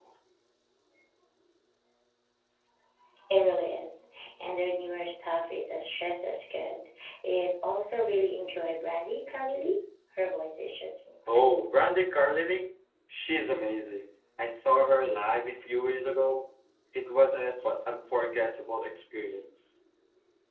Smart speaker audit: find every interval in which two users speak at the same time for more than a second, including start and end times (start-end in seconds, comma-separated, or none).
none